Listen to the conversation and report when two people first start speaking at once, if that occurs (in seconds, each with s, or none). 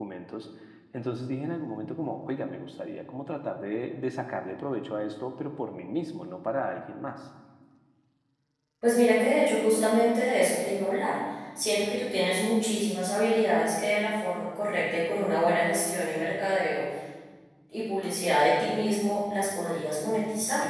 none